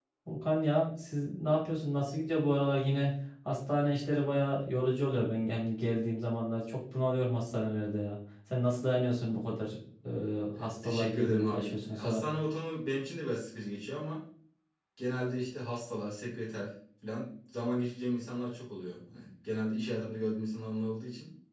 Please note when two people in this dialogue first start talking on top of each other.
11 s

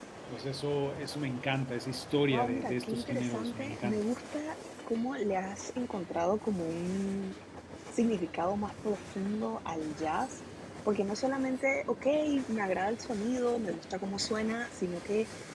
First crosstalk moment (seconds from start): 2 s

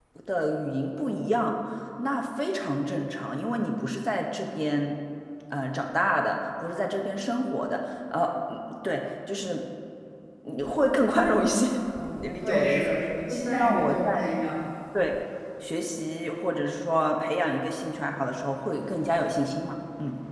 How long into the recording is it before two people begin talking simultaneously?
12 s

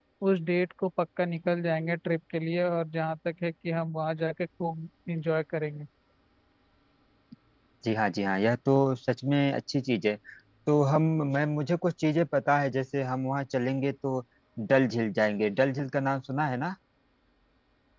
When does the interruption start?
none

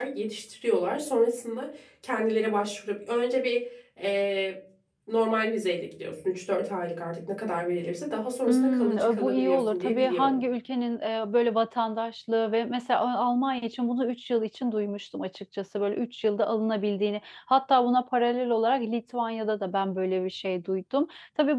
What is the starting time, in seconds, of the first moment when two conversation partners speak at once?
8 s

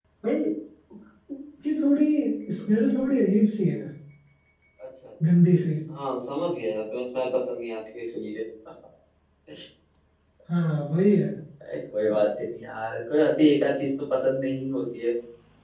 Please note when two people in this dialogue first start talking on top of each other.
none

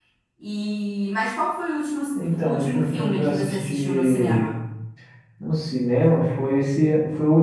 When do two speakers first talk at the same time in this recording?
2 s

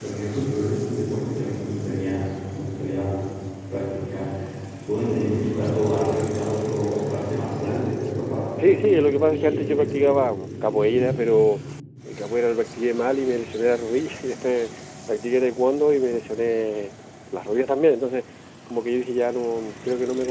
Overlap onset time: 9 s

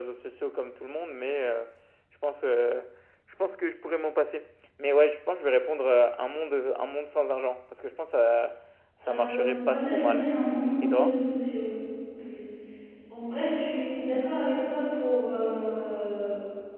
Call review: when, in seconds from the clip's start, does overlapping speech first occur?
9 s

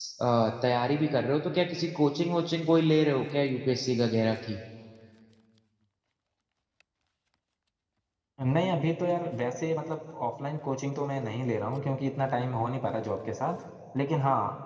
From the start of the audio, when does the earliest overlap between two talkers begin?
none

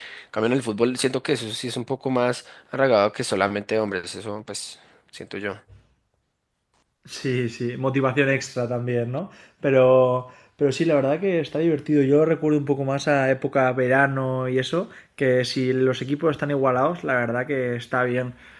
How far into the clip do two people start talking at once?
none

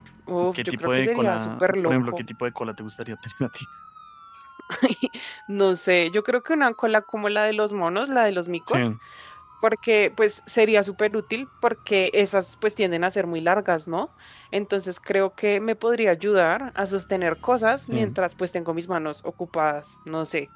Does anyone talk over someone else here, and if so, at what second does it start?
1 s

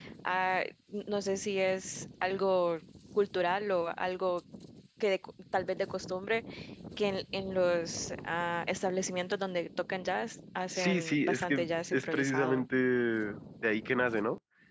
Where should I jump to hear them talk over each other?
11 s

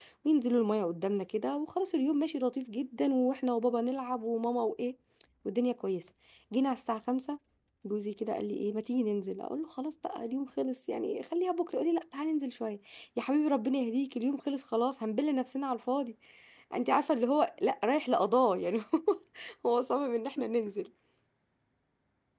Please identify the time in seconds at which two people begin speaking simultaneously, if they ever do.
none

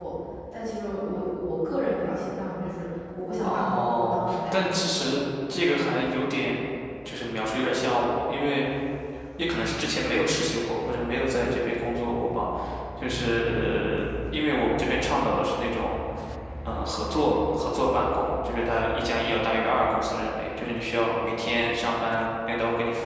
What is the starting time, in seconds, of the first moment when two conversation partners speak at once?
3 s

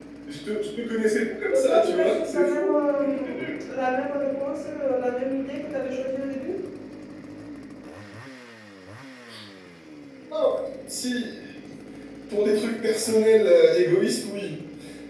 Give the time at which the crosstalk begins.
2 s

